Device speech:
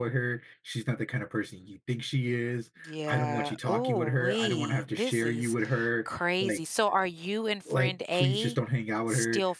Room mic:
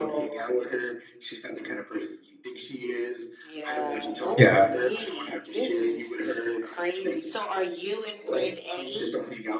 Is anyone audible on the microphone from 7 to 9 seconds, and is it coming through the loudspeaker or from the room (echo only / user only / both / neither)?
echo only